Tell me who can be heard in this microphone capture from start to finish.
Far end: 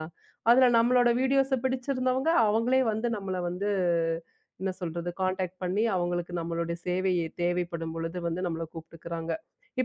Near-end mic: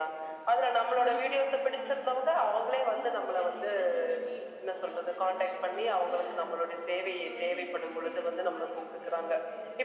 both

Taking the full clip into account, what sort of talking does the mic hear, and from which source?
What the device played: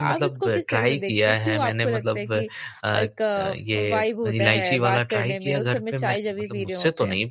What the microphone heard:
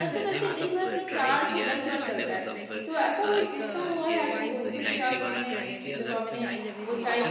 both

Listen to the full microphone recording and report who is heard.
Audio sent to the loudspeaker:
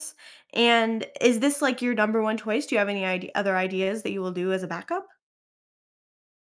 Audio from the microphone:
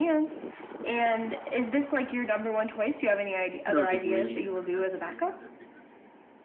both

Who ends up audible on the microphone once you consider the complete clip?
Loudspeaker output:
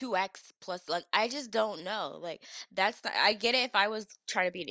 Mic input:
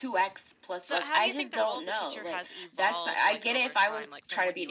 both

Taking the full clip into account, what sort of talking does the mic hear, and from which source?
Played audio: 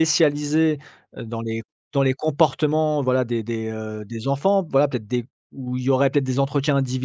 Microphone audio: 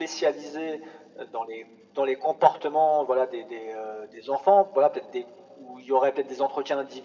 echo only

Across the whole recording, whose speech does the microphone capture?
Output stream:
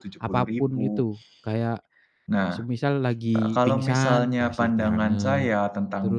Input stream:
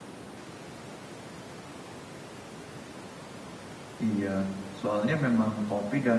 user only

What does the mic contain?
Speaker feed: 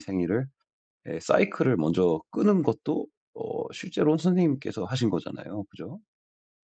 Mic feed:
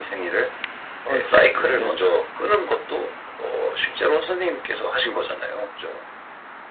both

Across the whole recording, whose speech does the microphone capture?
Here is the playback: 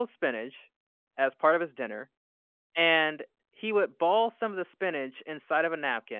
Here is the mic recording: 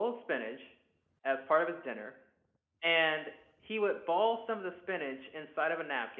echo only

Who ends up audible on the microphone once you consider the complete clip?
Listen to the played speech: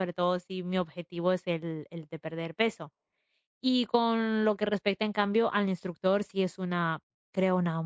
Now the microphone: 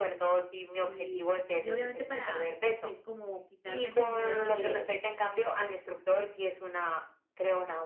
both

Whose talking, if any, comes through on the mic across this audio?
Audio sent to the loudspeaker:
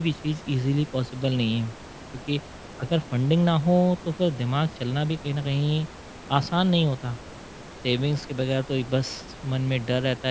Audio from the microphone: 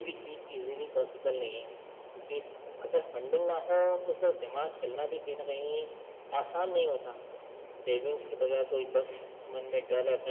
echo only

